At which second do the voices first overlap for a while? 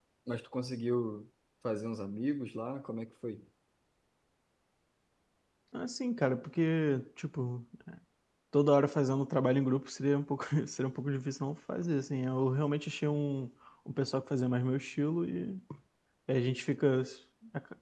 none

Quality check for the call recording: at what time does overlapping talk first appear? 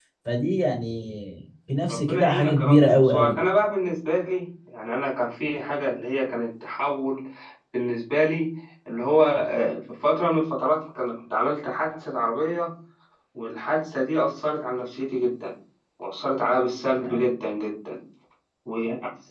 1.9 s

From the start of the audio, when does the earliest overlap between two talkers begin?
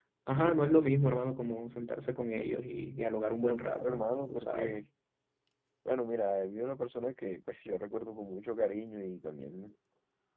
3.4 s

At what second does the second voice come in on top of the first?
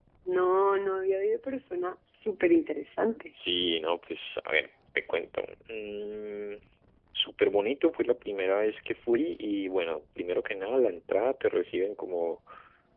none

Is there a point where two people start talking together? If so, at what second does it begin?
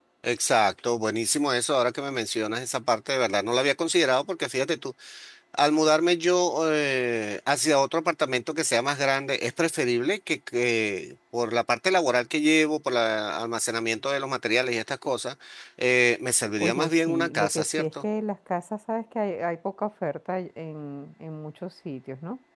16.6 s

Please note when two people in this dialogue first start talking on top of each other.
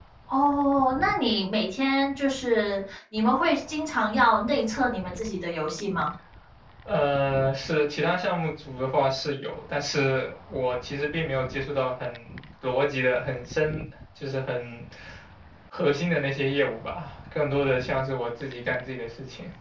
none

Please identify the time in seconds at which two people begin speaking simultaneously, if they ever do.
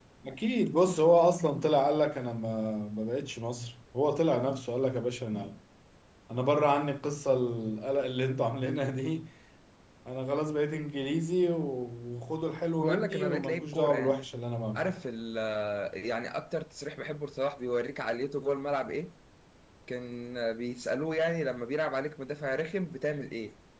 12.8 s

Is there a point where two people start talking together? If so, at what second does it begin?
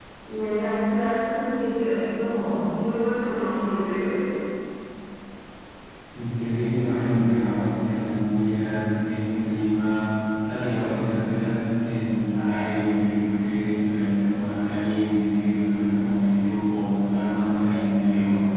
none

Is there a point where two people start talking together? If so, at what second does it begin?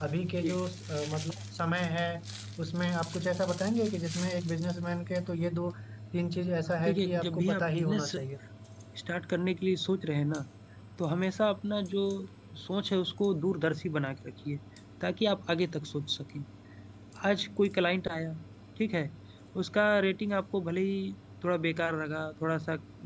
6.7 s

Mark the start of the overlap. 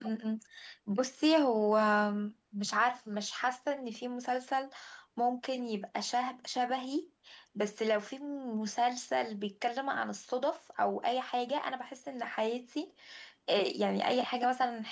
none

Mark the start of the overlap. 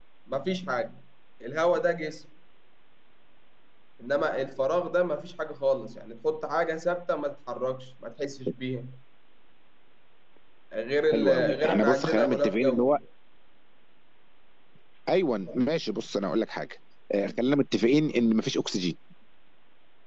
11.1 s

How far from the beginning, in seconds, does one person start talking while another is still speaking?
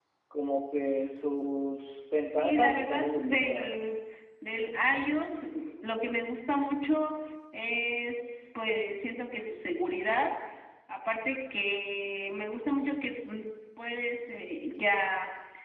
2.4 s

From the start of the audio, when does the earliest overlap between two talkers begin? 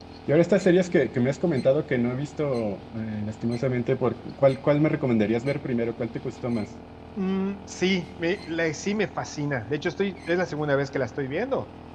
none

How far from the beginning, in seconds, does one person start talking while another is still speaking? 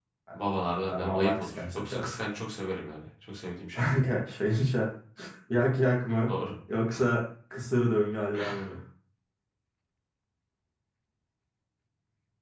0.9 s

